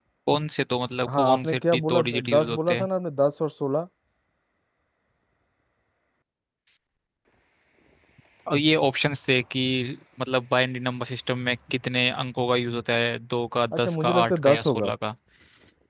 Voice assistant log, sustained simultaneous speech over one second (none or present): present